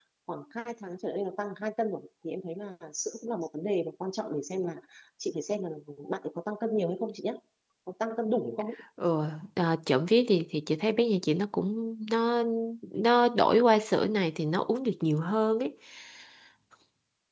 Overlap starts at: none

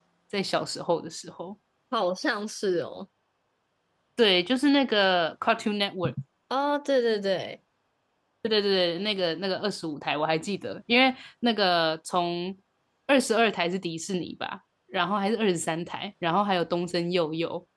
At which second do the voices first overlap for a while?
none

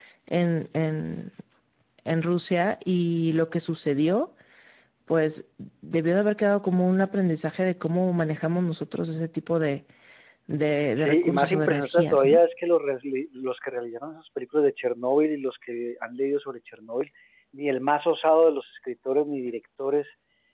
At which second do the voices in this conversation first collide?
11.0 s

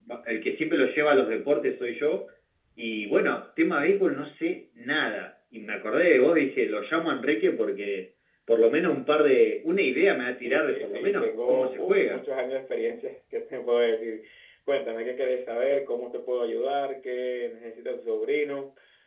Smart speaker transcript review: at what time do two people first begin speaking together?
10.4 s

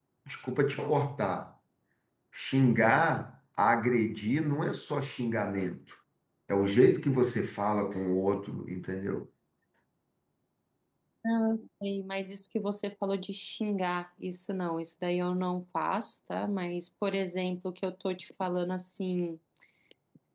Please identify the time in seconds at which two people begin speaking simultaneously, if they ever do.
none

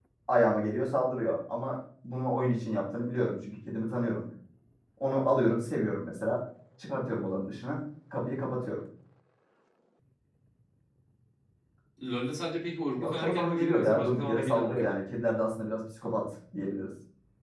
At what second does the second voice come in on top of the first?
13.0 s

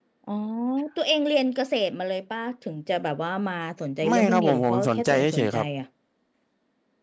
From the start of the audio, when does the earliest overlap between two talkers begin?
4.0 s

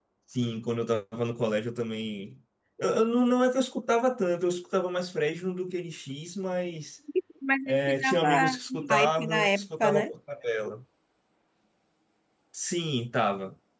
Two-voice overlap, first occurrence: 7.7 s

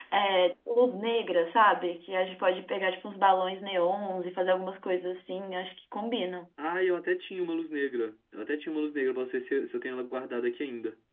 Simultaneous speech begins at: none

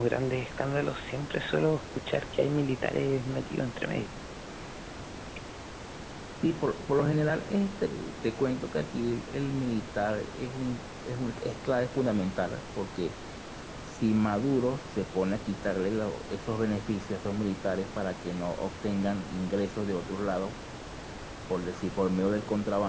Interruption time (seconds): none

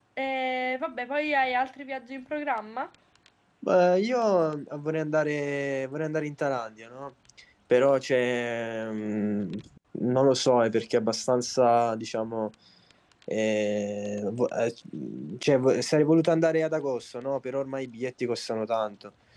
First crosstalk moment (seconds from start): none

